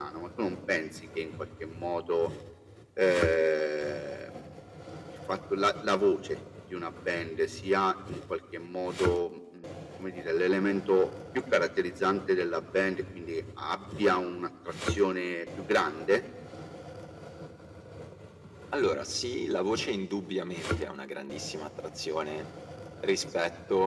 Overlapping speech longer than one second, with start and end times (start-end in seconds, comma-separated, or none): none